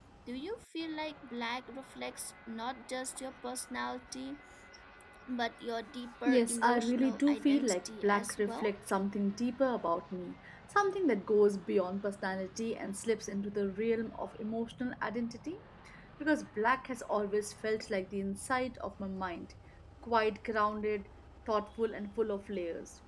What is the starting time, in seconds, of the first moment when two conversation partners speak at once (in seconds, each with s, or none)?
6.2 s